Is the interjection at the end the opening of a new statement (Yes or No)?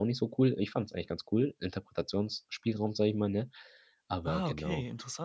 Yes